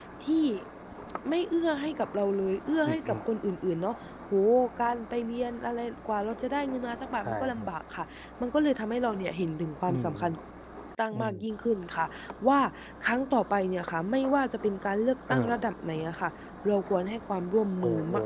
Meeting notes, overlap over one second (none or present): none